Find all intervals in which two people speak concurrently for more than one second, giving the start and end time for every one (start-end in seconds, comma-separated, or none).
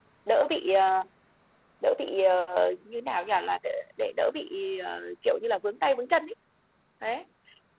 none